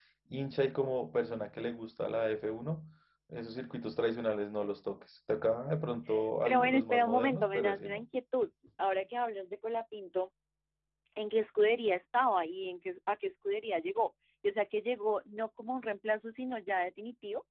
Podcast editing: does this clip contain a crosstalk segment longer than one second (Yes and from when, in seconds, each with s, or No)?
Yes, from 6.5 s